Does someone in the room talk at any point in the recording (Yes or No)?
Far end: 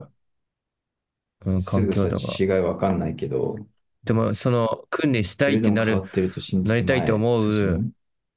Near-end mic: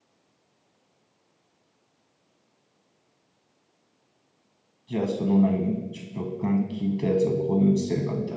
Yes